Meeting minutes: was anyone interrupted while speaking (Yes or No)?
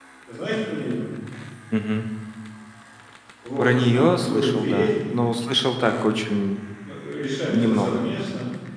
Yes